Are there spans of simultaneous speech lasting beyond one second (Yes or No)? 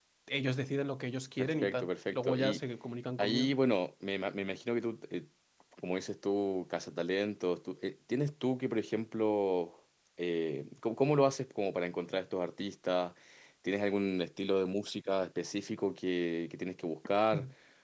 Yes